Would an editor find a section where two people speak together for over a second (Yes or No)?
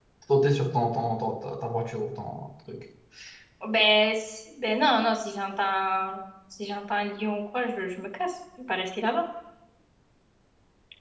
No